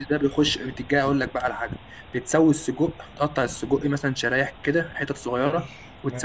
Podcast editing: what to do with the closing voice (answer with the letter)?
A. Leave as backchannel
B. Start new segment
A